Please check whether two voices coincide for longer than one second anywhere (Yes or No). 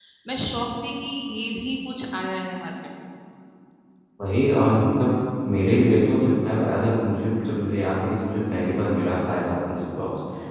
No